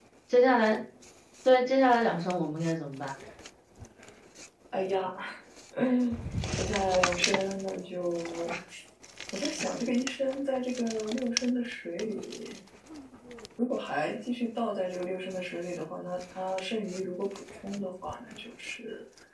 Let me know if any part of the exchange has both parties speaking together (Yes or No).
No